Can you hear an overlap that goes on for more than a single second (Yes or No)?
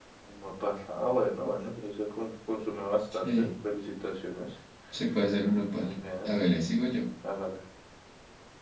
No